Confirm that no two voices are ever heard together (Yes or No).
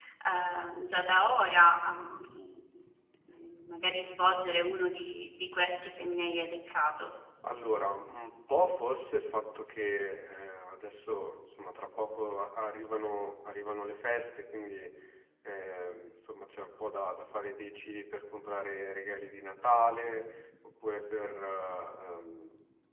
Yes